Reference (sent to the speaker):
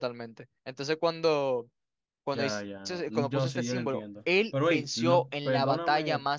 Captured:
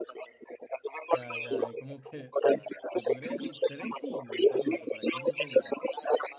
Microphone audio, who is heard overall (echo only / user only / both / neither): both